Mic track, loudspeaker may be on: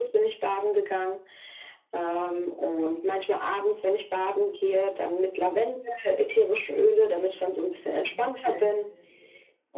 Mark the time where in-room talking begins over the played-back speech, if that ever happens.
8.1 s

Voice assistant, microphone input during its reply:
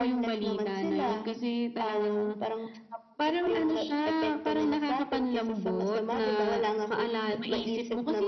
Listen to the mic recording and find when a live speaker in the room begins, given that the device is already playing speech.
none

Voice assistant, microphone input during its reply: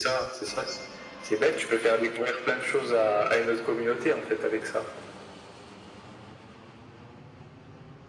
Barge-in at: none

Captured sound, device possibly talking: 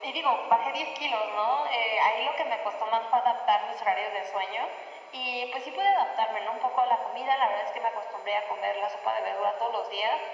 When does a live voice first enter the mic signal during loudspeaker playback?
none

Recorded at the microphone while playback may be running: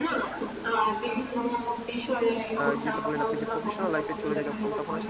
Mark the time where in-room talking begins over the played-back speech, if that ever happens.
2.6 s

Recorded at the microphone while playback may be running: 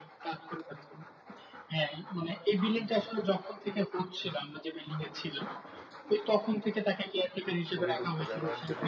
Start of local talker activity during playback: 7.7 s

